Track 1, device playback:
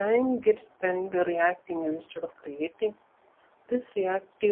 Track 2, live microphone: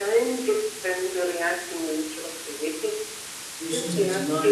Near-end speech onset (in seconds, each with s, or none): 3.6 s